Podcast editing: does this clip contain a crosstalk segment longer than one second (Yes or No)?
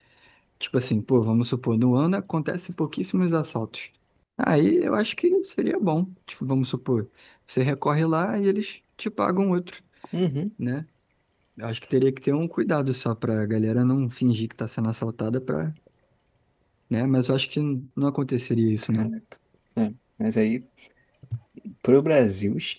No